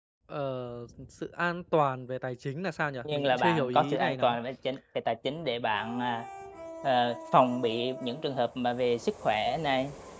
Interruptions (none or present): present